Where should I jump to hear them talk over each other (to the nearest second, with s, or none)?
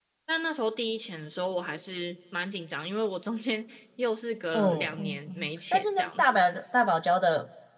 5 s